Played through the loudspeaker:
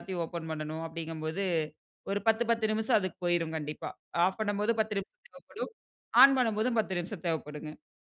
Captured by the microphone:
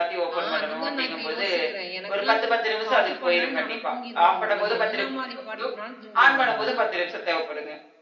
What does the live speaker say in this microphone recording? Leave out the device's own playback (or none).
ஆ. அதுதான் நான் இப்ப யோசிக்கிறேன். எனக்குலாம் பாட்டு பாட்னாலே நான்லாம் தூங்கிருவங்க நானு. என்ன மாரி பாட்டுக்குனாலும் தூங்கிருவேன் நானு.